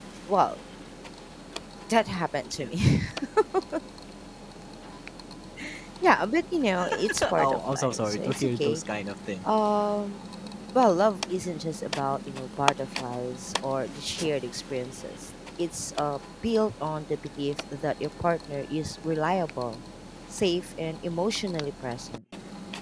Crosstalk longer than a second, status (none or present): present